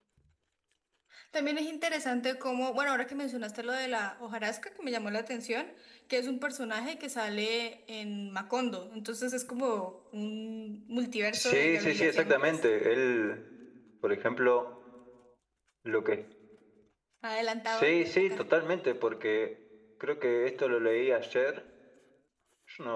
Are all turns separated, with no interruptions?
No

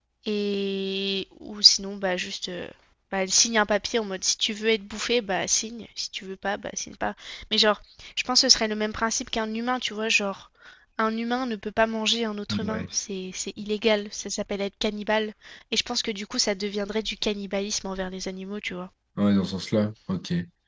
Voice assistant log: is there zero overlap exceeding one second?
Yes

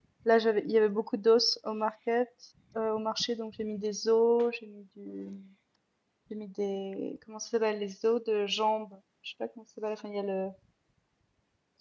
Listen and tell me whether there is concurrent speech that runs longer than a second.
No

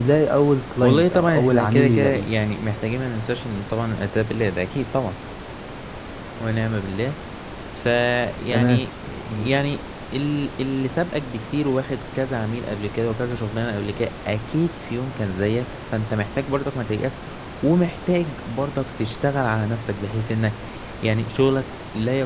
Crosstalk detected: Yes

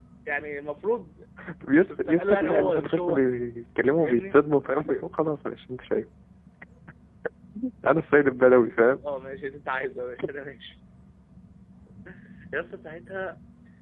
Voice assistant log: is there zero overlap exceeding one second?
No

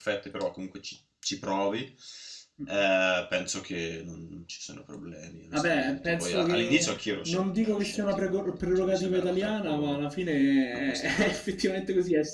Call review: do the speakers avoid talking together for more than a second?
No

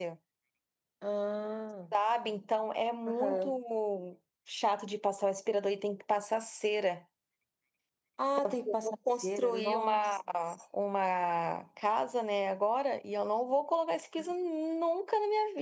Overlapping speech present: Yes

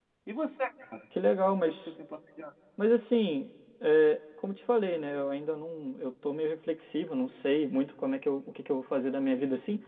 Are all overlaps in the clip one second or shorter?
Yes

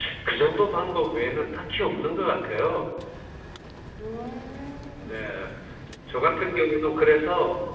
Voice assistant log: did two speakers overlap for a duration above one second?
No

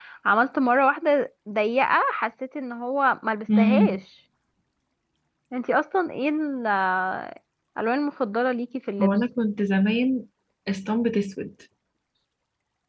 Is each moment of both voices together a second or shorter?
Yes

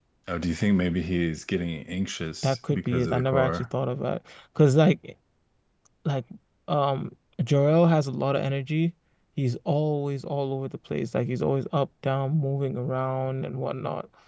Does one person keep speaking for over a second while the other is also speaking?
Yes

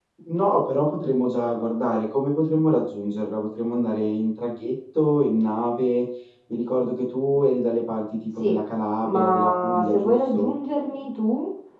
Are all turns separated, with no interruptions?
No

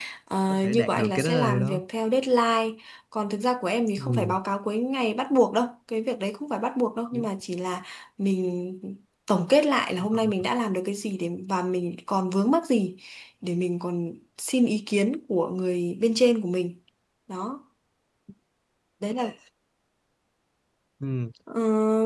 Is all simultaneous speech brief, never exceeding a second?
No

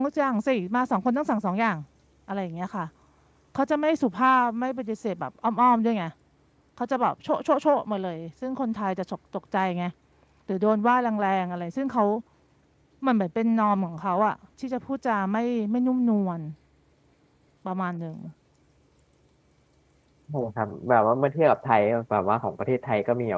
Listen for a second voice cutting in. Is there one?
No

